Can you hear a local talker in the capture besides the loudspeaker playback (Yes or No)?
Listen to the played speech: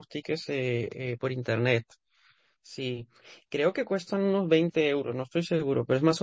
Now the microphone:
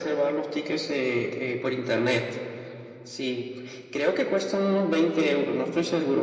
No